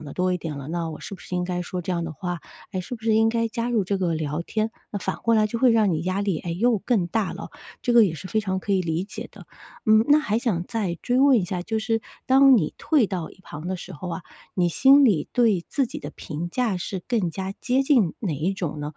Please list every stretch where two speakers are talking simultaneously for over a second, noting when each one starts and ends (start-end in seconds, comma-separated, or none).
none